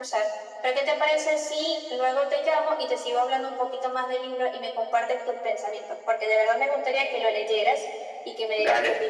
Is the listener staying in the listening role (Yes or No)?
No